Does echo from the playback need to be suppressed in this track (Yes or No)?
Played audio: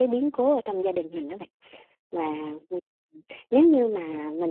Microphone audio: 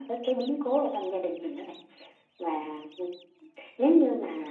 Yes